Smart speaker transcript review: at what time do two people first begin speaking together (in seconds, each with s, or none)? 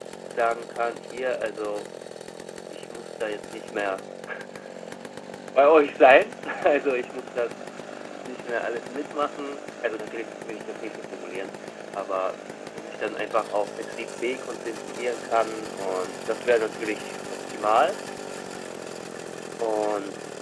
none